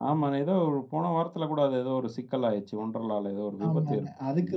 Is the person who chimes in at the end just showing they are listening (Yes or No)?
No